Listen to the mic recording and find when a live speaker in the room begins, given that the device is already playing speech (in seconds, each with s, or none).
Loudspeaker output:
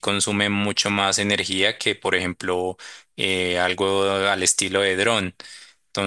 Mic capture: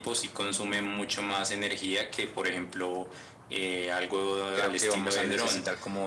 4.5 s